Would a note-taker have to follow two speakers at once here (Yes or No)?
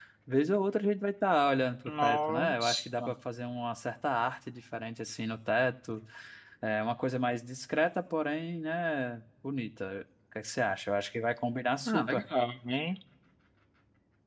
Yes